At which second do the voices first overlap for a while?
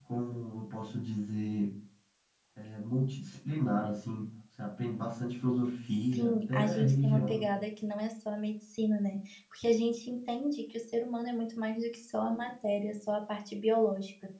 6.1 s

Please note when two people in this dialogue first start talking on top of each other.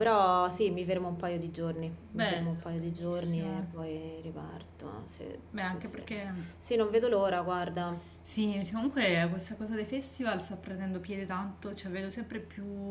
2.1 s

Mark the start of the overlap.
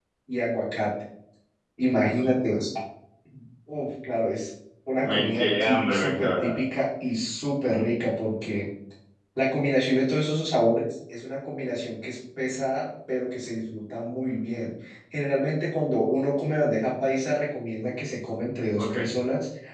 5.0 s

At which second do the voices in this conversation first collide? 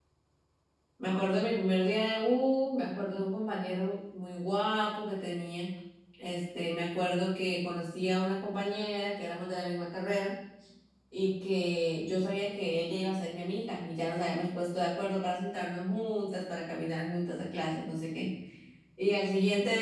none

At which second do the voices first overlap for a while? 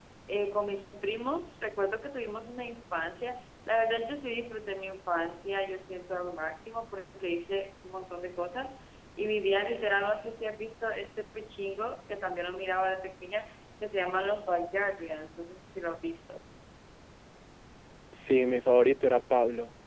none

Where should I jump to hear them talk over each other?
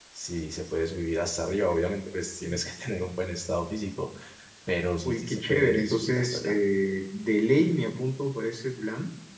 5.0 s

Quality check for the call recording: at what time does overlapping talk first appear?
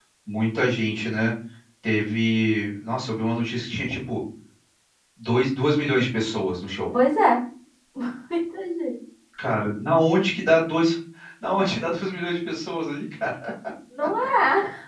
none

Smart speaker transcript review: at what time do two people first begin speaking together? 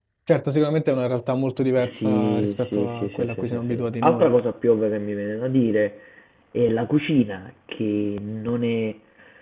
2.0 s

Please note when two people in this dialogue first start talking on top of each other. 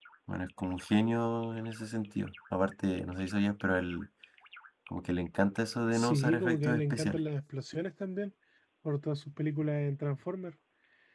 5.9 s

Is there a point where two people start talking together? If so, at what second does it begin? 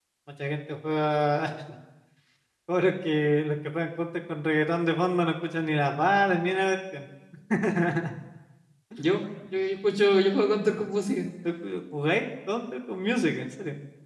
none

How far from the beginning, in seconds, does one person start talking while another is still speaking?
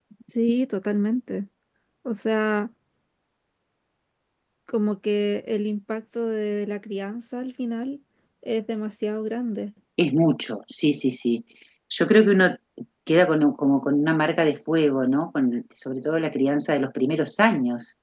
none

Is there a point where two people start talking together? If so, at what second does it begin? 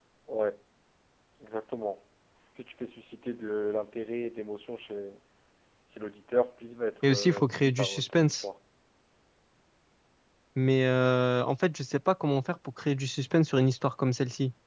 7.0 s

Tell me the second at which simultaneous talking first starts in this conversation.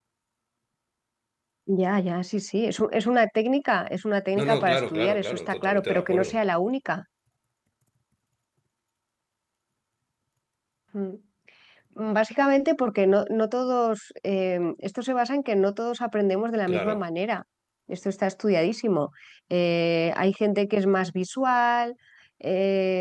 4.4 s

